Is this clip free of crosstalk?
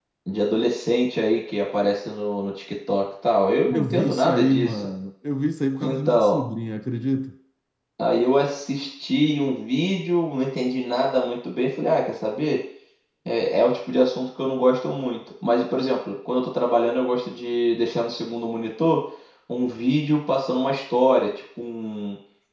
No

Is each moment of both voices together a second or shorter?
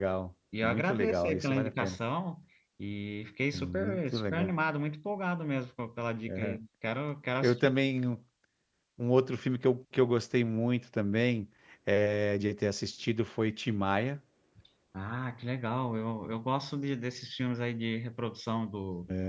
No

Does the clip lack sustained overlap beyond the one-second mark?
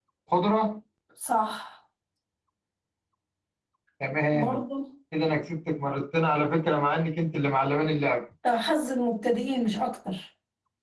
Yes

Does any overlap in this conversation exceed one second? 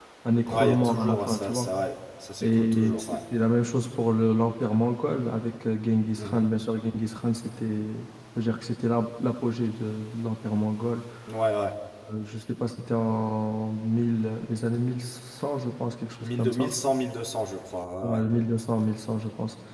Yes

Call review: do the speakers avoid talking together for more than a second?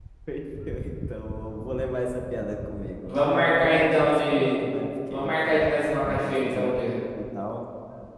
No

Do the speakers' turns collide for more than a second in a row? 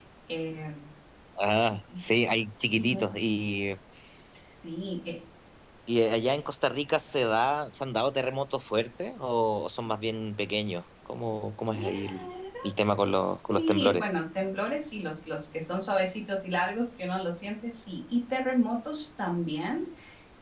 Yes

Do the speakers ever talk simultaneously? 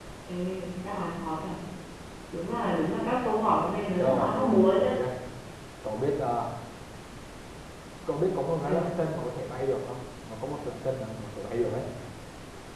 Yes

